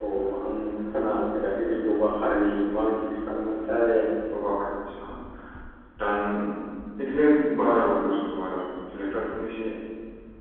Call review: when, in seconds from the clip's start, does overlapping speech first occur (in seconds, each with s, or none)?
none